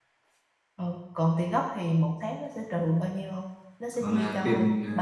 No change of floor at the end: No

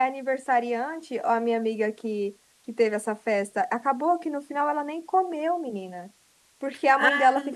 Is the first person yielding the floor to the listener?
No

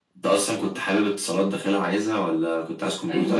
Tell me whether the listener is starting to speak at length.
Yes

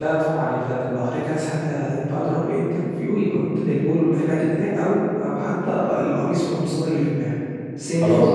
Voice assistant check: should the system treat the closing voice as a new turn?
Yes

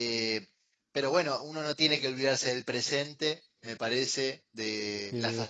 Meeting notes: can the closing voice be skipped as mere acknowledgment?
Yes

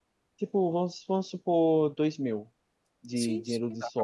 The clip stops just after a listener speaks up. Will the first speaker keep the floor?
No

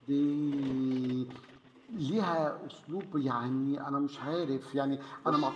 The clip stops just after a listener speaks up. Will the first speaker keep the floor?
Yes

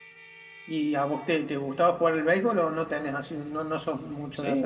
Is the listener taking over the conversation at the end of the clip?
Yes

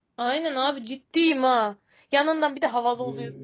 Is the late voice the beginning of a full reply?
No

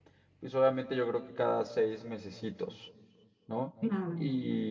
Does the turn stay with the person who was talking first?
Yes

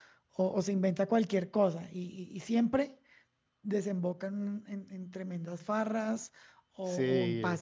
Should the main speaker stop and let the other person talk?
No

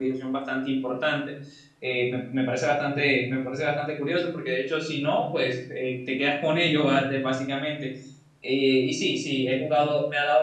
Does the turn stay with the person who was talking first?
Yes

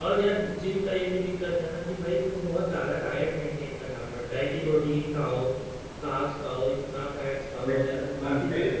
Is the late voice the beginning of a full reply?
Yes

